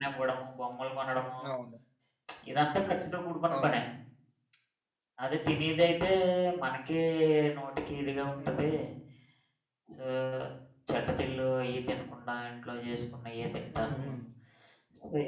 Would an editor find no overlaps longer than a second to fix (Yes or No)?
Yes